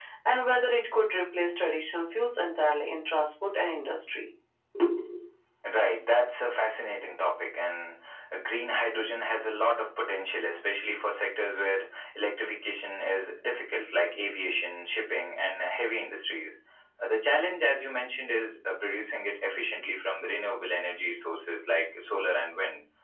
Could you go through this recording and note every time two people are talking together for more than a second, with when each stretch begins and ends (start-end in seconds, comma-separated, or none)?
none